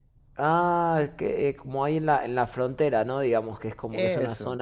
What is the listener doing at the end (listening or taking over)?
listening